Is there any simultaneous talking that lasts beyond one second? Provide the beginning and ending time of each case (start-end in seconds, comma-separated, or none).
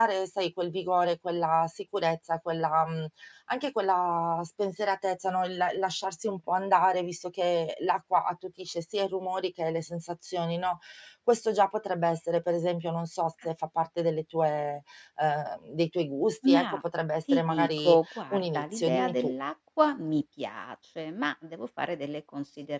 17.3-19.3